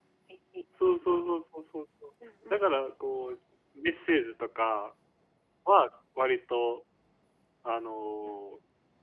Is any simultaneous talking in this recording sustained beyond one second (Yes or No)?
No